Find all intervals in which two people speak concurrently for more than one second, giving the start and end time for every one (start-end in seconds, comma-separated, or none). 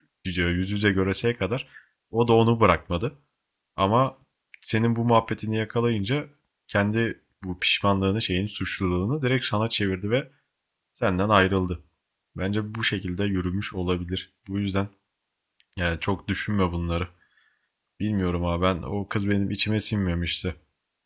none